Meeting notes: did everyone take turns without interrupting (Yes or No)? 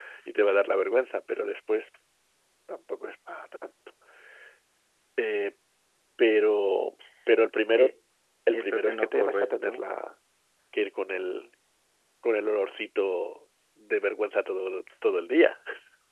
No